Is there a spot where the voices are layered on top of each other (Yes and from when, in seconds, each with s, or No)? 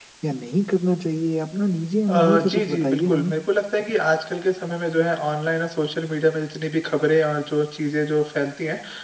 Yes, from 2.1 s